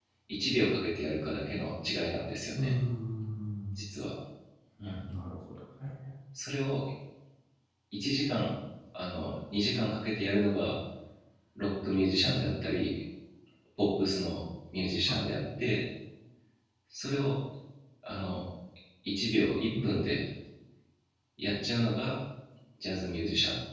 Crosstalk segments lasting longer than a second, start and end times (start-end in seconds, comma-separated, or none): none